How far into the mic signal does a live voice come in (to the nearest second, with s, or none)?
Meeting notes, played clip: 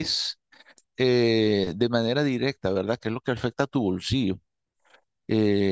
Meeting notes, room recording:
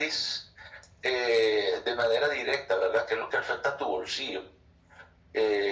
none